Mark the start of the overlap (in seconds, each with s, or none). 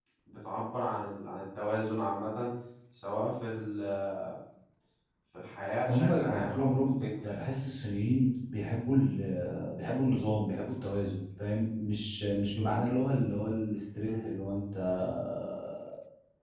5.9 s